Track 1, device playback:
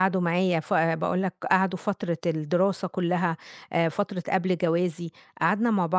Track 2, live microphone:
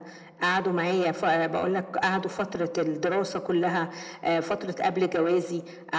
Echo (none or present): present